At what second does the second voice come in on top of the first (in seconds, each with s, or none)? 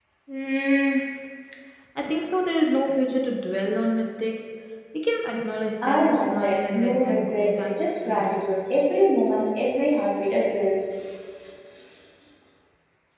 5.8 s